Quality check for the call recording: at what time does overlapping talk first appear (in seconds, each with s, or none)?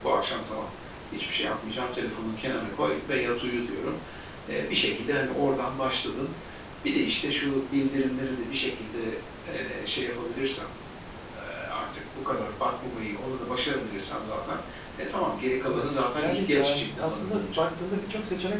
15.7 s